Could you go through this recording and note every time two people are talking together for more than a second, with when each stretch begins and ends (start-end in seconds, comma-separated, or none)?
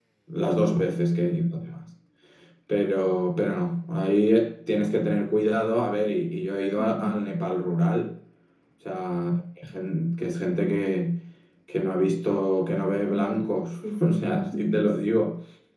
13.1-15.0